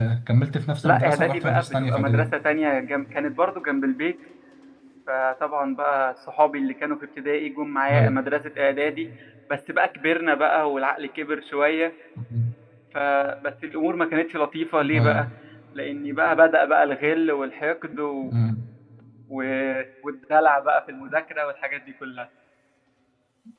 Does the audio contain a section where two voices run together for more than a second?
Yes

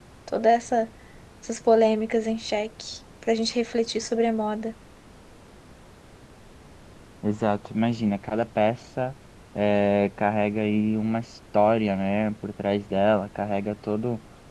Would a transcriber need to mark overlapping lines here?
No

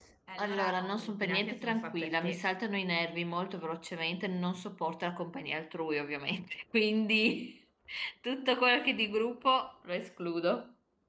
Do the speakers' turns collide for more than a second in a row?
Yes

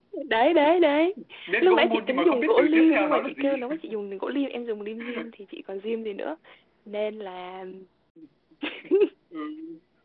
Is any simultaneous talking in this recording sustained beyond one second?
Yes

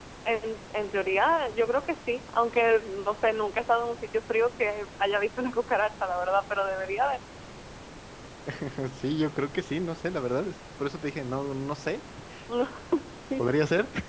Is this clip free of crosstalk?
Yes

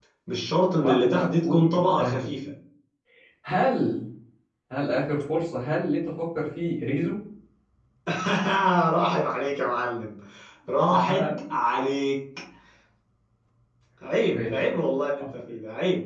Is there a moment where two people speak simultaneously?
Yes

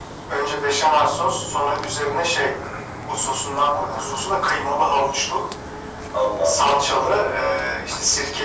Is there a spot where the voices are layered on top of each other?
Yes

